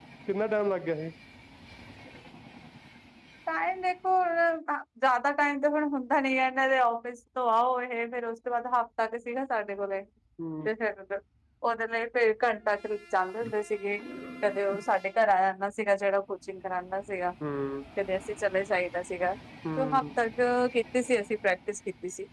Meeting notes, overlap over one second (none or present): none